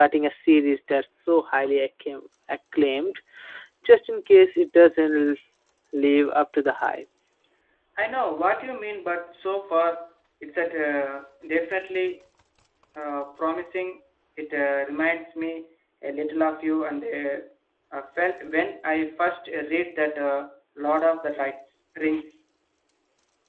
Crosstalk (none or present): none